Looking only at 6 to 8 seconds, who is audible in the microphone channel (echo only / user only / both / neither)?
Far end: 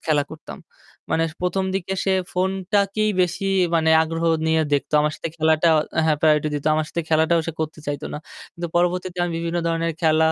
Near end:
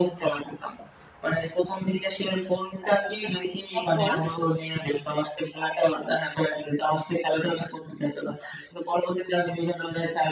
echo only